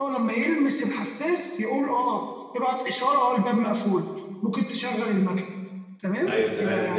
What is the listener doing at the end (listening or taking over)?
taking over